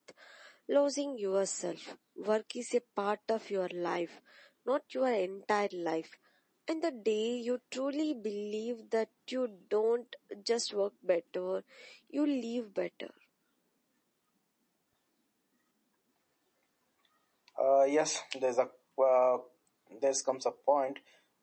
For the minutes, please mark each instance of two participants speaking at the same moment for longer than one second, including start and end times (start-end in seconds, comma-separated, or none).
none